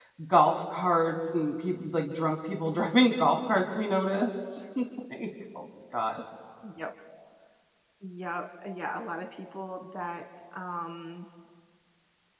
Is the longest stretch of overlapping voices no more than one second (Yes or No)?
Yes